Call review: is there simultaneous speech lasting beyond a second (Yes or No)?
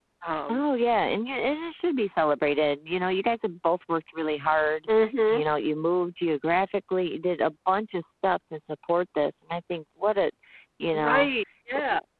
No